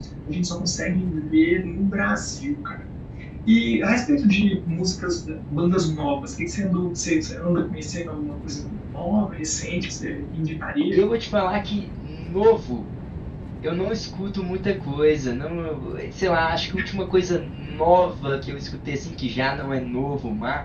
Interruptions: none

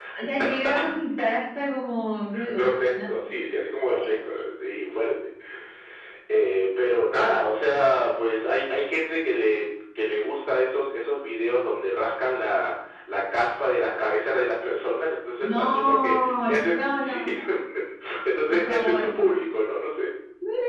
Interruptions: present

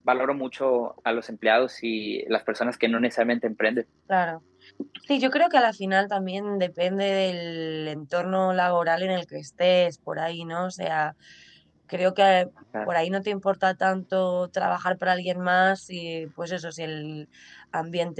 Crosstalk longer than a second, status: none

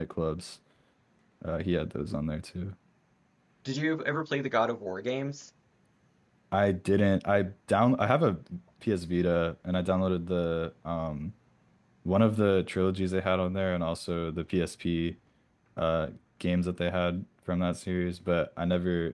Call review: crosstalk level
none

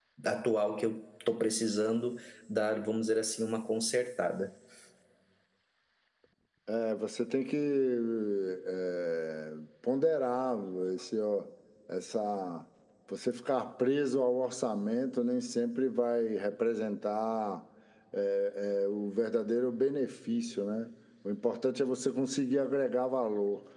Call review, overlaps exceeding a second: none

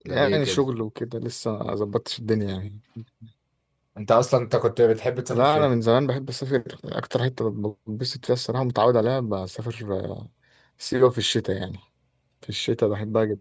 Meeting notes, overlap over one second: none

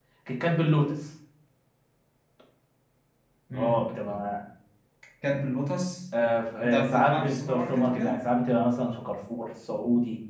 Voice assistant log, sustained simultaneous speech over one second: present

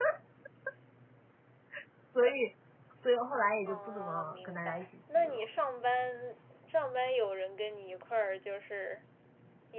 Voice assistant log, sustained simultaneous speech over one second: present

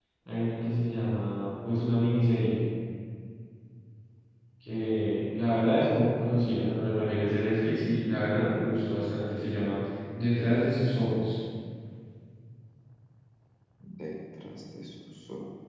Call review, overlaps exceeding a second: none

